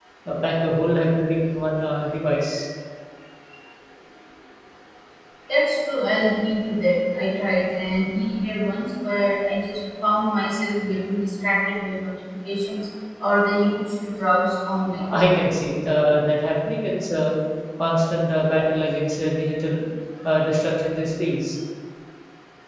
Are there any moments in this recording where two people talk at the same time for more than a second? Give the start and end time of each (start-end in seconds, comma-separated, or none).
none